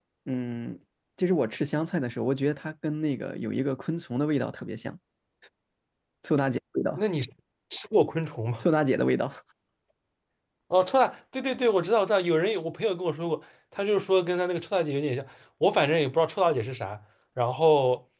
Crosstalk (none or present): none